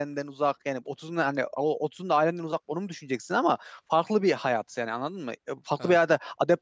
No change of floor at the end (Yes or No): Yes